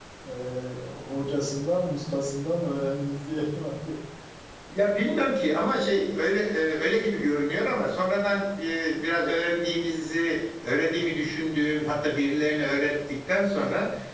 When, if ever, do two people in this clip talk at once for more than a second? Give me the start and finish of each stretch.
none

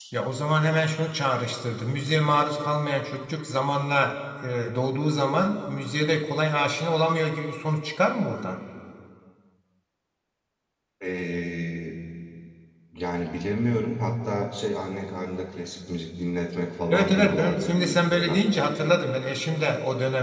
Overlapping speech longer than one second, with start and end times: 16.9-18.4

